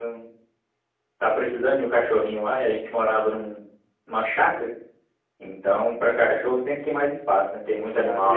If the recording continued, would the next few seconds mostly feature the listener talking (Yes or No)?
Yes